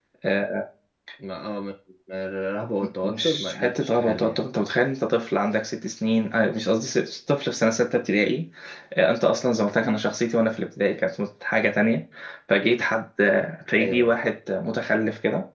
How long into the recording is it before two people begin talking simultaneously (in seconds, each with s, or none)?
3.0 s